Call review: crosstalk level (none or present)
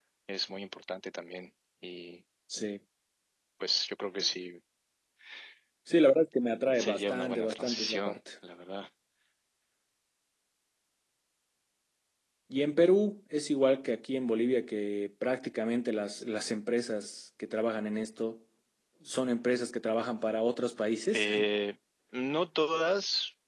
present